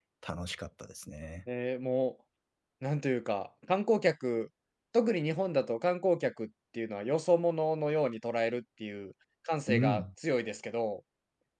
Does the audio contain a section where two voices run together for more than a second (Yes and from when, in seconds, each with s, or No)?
No